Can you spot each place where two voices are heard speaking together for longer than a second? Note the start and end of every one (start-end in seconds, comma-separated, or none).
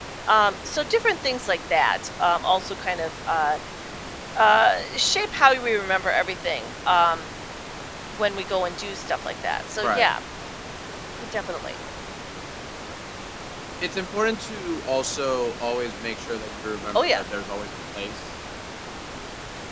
none